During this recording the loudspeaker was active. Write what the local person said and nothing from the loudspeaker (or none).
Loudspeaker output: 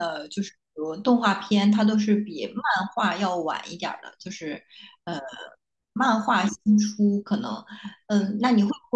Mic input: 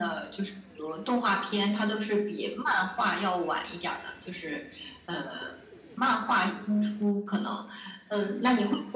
none